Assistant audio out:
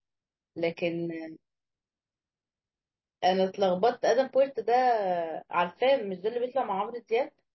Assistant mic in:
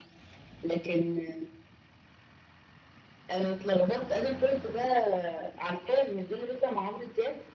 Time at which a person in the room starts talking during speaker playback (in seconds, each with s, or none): none